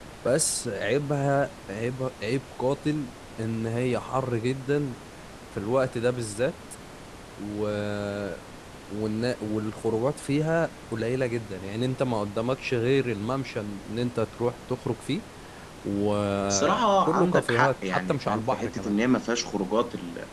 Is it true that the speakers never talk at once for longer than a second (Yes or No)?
No